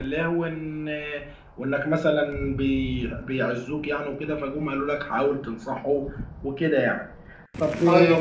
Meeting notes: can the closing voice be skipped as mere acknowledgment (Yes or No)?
Yes